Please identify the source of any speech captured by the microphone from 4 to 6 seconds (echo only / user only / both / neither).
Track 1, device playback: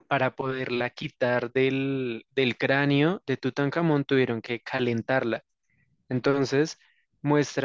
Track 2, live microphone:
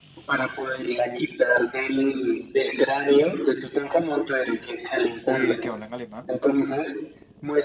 both